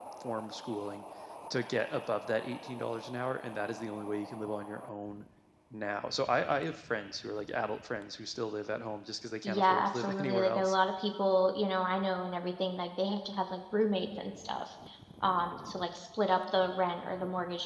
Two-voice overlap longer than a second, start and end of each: 9.4-10.8

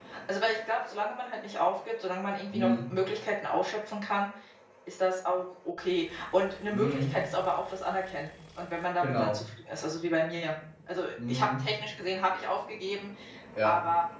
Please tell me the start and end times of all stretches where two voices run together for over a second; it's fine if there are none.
none

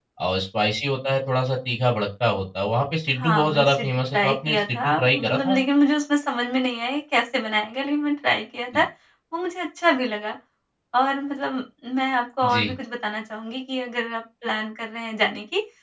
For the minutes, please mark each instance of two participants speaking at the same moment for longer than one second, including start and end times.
3.2-5.6

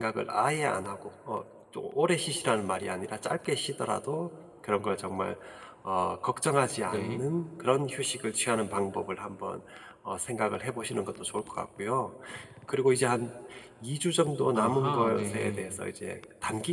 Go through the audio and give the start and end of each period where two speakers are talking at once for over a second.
14.5-15.8

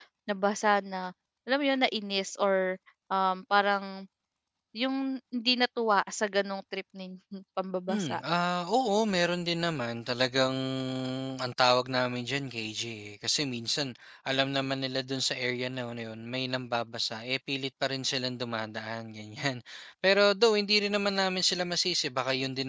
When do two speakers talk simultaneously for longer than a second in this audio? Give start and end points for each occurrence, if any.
none

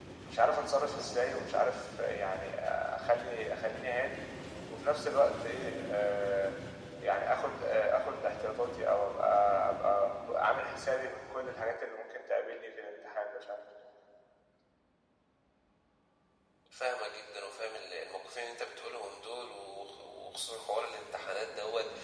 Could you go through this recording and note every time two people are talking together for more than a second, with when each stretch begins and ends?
none

